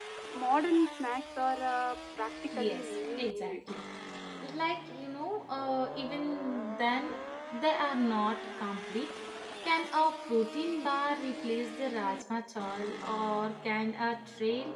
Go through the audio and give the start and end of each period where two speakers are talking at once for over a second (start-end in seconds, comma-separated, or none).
2.5-3.8